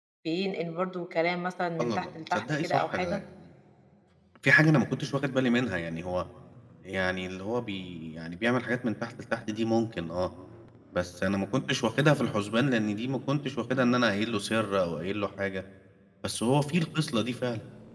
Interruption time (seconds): 2 s

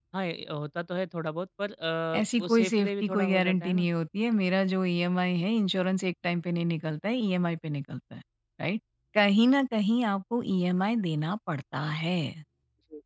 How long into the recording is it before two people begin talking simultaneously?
2 s

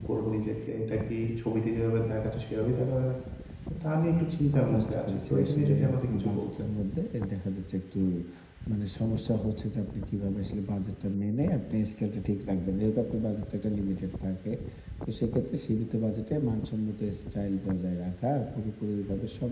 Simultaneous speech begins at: 5 s

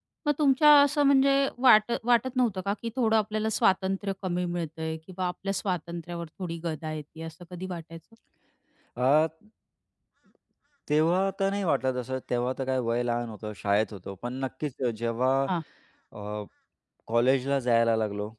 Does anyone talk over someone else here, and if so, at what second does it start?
none

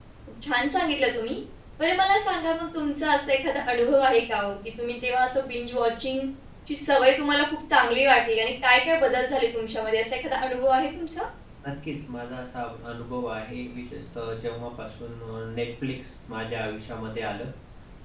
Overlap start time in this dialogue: none

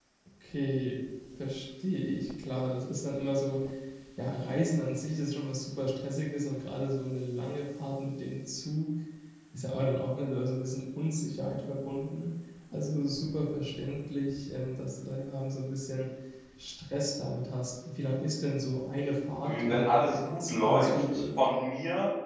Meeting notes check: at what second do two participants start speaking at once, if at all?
19 s

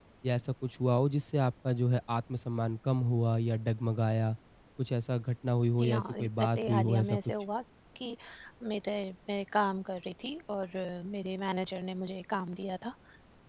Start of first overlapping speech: 6 s

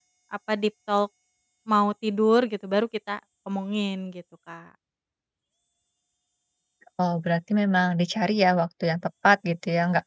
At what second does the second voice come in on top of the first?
none

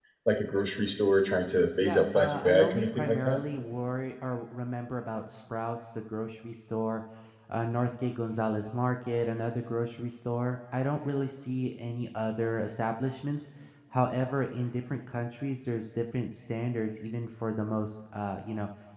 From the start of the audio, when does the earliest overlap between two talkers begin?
2 s

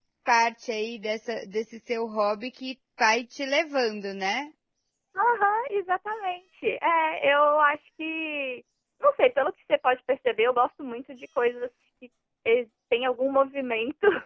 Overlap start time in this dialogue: none

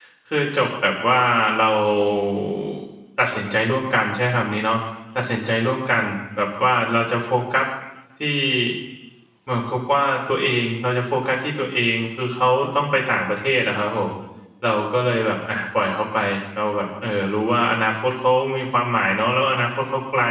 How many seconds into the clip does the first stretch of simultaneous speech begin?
none

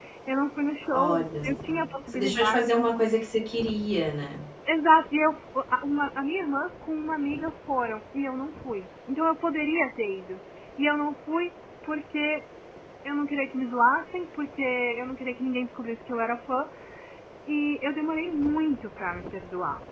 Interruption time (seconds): 1 s

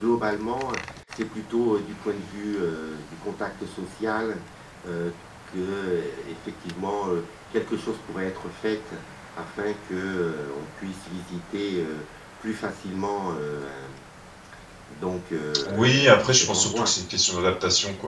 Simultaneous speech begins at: 16 s

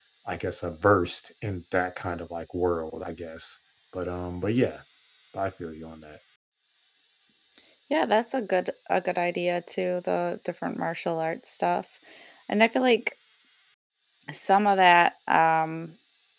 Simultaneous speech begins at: none

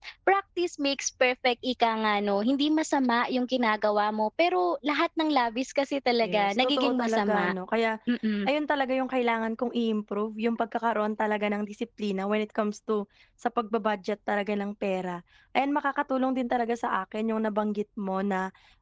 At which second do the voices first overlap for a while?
6 s

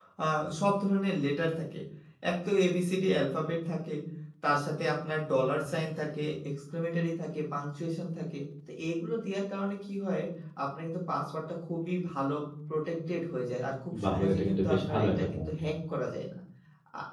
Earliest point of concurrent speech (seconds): 14 s

